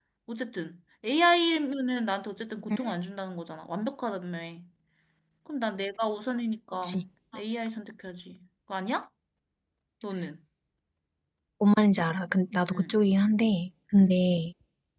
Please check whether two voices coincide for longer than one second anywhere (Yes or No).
No